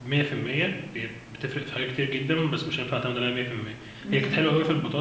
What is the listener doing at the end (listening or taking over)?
listening